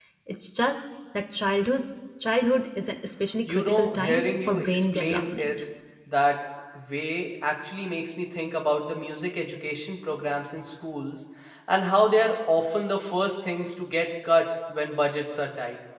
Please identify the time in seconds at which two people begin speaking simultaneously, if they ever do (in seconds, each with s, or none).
3.5 s